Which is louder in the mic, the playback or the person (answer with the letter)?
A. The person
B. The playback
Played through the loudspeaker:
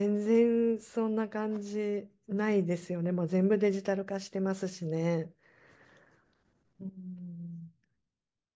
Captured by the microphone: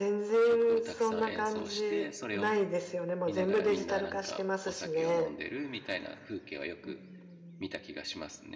B